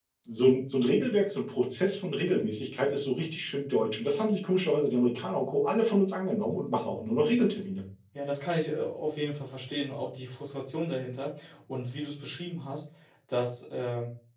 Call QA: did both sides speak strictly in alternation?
Yes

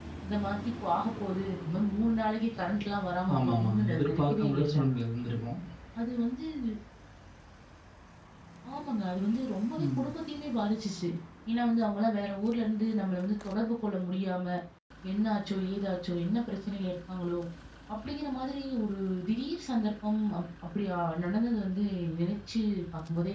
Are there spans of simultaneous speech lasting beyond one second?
Yes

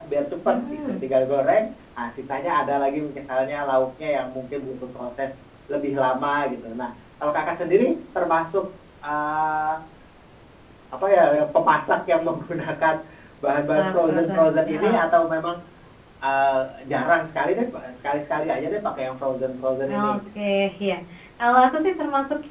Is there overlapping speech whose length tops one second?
Yes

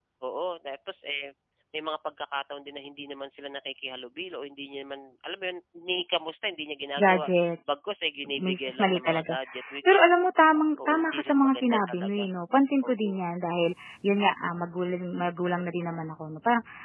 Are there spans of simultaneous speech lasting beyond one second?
Yes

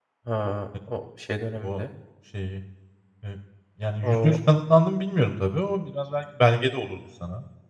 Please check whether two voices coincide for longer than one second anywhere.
No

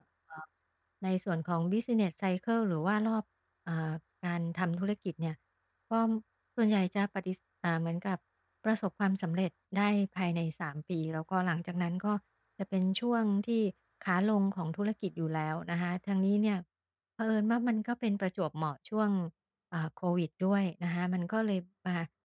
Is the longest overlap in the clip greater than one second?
No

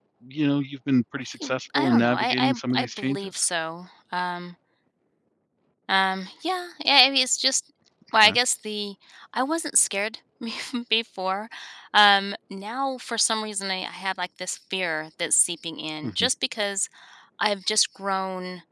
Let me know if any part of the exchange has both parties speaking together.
Yes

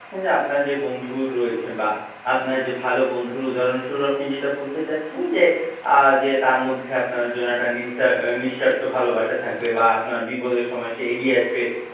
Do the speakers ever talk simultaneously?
No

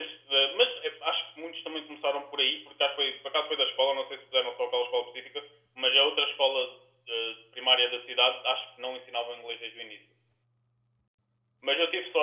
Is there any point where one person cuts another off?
No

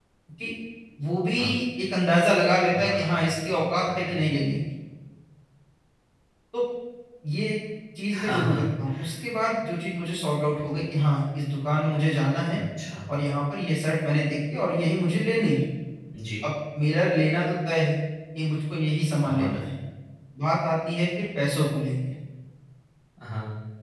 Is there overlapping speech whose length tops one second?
Yes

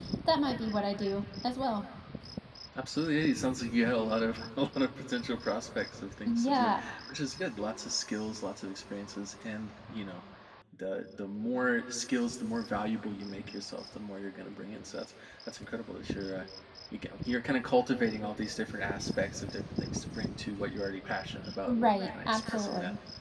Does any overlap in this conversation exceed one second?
Yes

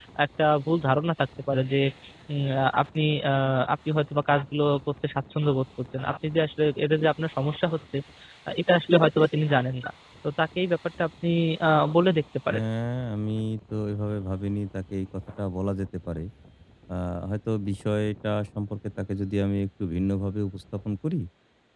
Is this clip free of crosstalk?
Yes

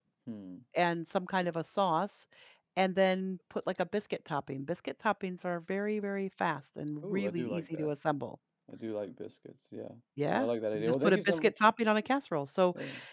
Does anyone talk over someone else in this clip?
Yes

